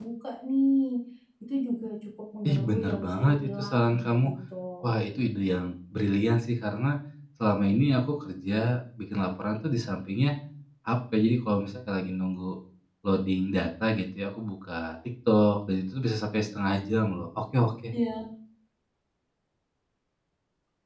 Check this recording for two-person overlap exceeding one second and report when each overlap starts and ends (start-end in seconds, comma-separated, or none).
2.5-4.2